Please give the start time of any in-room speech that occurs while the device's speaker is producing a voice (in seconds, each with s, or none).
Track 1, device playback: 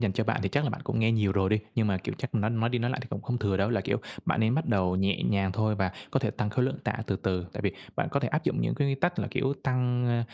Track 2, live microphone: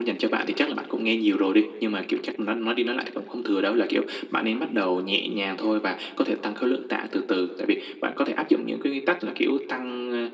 none